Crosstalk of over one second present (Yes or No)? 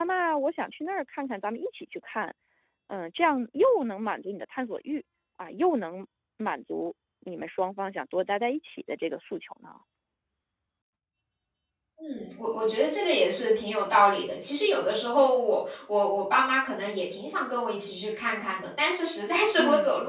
No